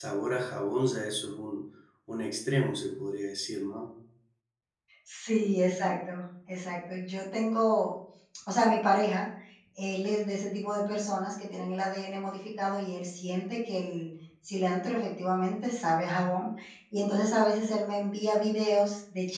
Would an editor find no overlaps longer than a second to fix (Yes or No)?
Yes